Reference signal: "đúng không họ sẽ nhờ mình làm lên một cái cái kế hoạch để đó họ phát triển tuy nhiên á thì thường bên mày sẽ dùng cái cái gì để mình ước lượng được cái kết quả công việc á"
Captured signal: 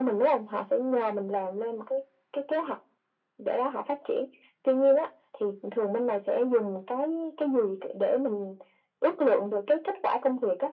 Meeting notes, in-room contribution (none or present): none